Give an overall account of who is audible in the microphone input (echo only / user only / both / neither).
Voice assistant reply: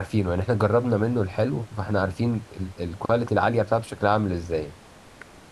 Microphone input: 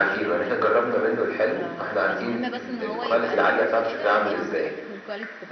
both